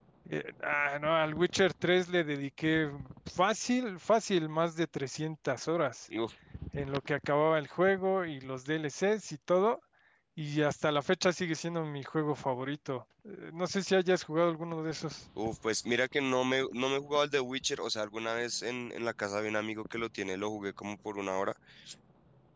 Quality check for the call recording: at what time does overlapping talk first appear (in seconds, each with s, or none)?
none